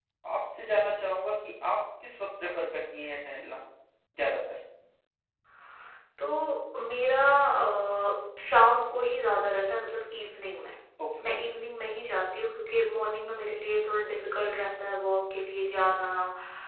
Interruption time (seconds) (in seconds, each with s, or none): none